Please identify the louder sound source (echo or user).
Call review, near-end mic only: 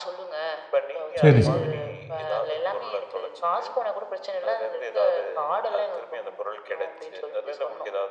user